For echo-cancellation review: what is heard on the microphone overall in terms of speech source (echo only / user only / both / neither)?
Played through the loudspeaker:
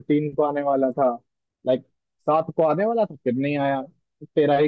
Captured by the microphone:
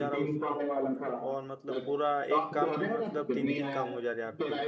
both